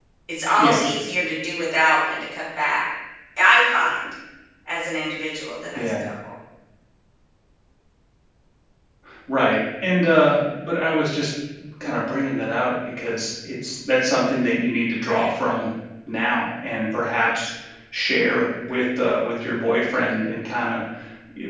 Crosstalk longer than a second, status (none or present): none